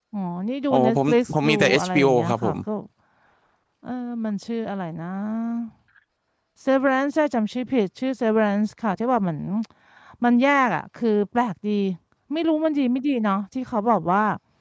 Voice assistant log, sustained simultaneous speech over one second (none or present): present